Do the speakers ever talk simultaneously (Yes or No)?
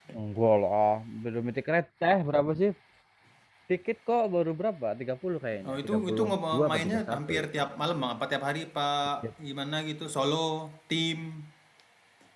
Yes